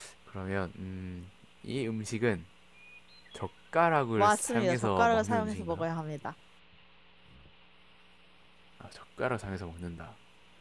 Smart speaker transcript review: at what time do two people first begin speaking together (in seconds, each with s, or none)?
4.2 s